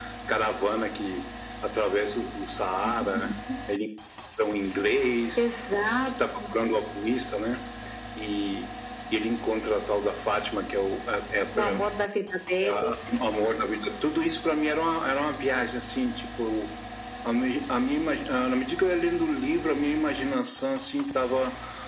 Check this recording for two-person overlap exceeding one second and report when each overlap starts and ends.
none

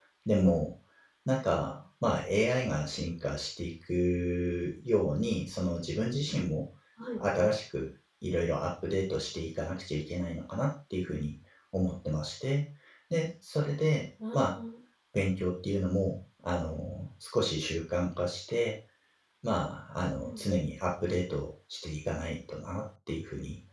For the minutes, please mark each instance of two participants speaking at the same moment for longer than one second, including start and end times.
none

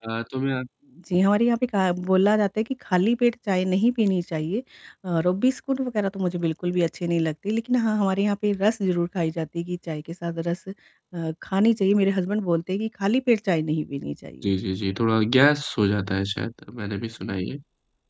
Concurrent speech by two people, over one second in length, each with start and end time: none

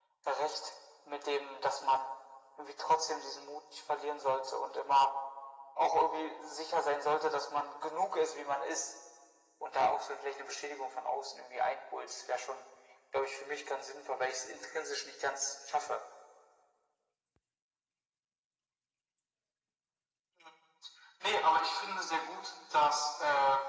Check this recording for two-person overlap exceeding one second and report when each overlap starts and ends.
none

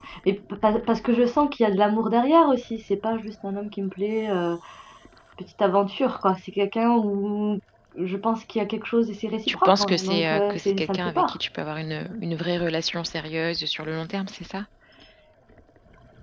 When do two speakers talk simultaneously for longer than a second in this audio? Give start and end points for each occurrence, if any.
9.5-11.4

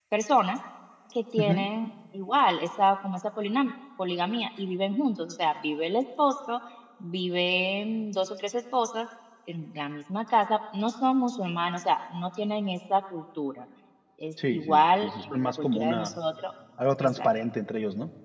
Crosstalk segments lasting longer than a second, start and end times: 14.5-16.1

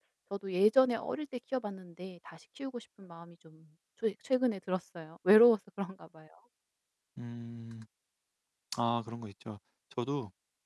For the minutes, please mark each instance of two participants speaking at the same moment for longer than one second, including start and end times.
none

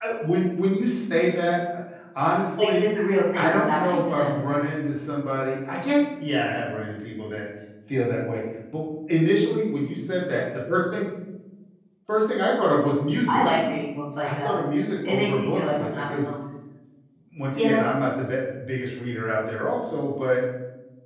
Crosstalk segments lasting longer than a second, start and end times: 3.4-4.8, 15.1-16.3

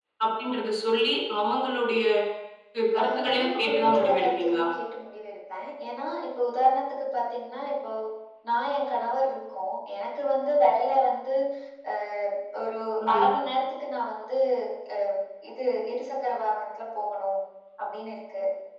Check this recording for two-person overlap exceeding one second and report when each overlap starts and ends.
3.0-4.6

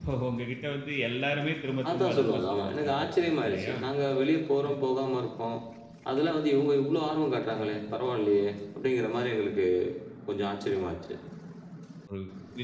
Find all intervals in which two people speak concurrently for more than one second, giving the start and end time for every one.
1.9-3.8

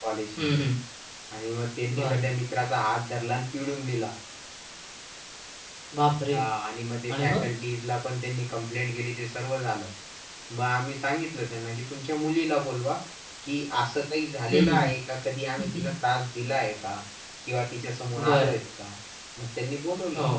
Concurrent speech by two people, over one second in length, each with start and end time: none

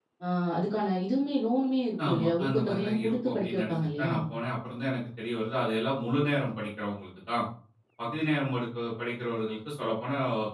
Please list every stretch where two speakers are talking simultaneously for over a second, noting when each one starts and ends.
2.1-4.1

